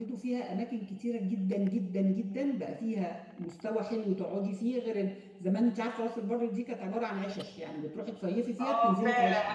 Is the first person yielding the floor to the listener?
Yes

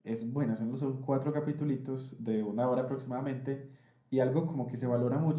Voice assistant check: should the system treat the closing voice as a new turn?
No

